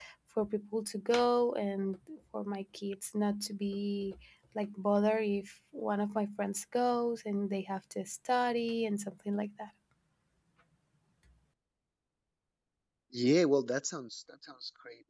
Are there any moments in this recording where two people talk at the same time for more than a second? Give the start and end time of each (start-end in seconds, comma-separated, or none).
none